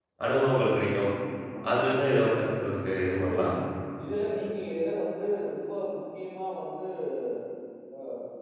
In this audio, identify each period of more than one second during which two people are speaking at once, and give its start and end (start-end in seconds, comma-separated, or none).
none